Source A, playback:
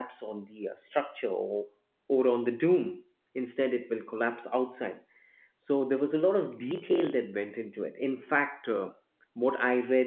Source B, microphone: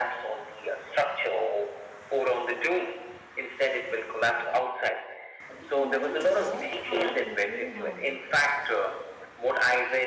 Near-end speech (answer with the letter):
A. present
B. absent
A